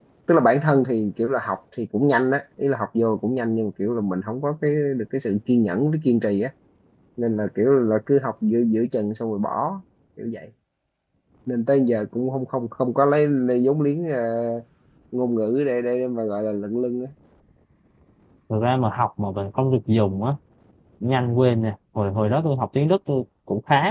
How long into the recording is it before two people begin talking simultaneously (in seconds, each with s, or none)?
none